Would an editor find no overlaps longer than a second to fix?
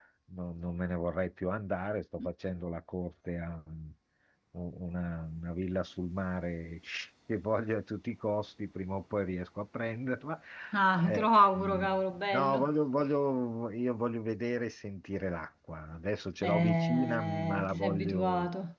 No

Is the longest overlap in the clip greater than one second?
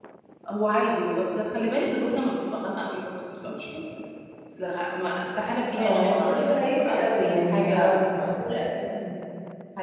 Yes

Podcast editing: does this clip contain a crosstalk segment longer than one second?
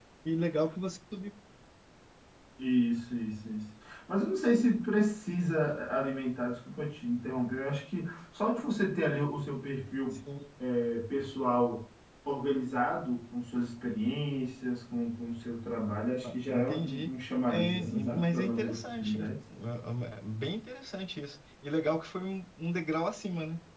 Yes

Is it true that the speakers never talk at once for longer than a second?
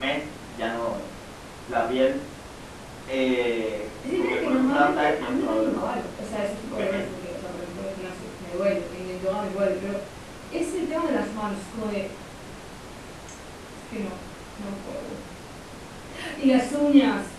No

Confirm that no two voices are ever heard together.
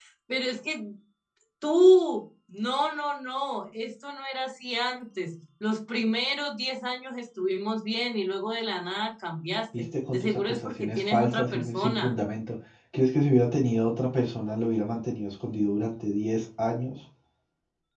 No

